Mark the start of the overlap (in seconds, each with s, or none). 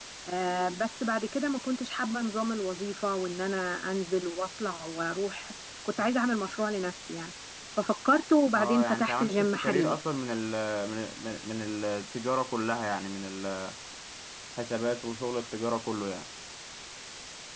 8.5 s